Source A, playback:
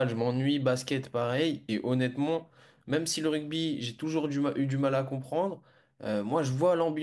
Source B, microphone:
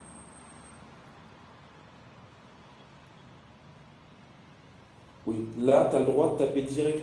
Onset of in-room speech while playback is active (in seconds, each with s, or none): 5.3 s